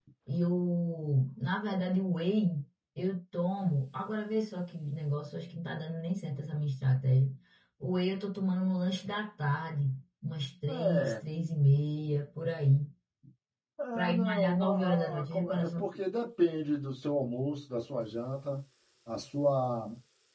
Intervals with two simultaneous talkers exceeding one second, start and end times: 14.0-15.7

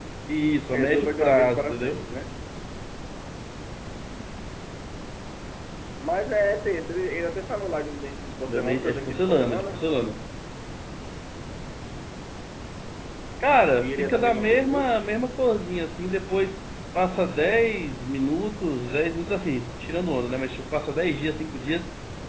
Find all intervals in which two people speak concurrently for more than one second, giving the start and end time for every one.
0.7-2.0, 8.5-9.9, 13.8-15.1

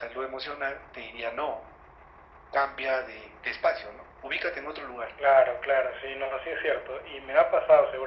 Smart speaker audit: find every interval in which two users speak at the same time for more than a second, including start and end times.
none

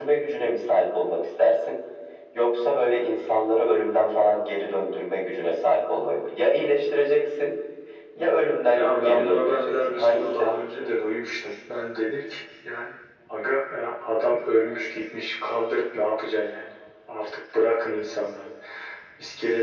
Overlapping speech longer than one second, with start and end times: 8.7-10.5

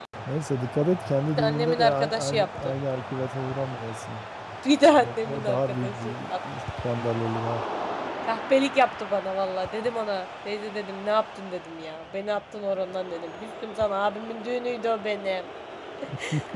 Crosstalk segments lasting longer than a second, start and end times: 1.4-2.7, 5.0-6.4

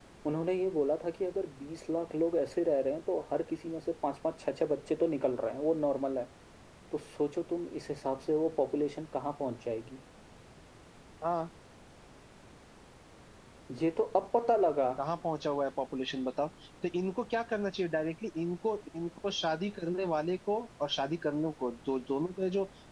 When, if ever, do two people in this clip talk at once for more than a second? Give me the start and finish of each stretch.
none

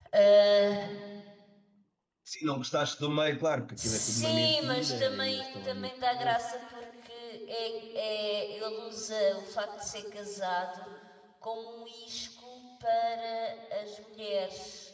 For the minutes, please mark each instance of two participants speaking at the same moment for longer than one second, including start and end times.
3.8-6.4

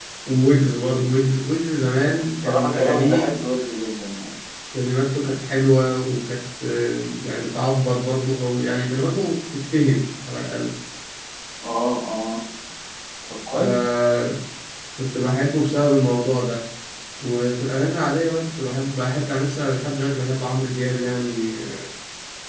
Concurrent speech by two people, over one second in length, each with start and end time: 2.1-3.3

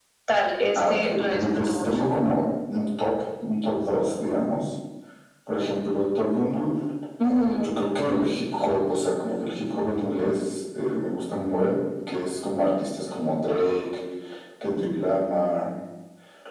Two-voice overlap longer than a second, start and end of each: 0.8-2.0

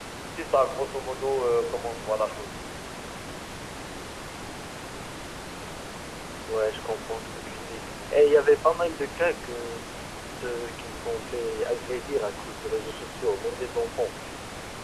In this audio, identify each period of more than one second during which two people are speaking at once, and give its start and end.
none

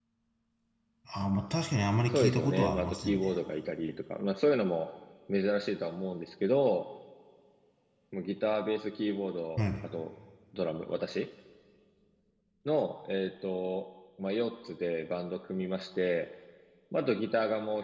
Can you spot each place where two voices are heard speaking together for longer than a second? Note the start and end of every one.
2.1-3.3

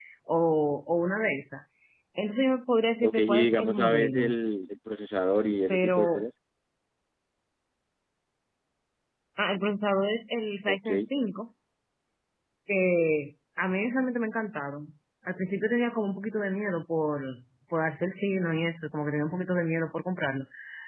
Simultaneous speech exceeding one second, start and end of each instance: 3.0-4.3

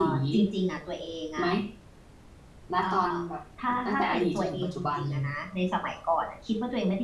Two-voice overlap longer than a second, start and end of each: 3.9-5.2

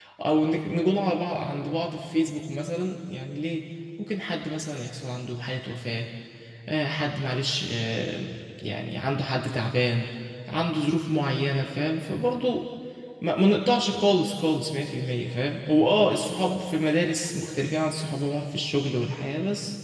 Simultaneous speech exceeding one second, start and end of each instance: none

